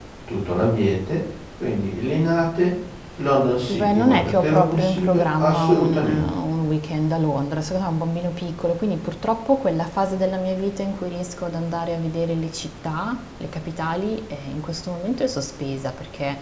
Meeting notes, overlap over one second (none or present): present